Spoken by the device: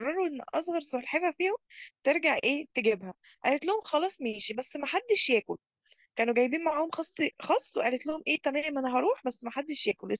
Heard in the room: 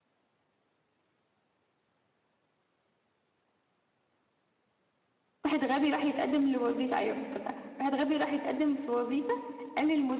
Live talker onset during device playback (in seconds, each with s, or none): 5.4 s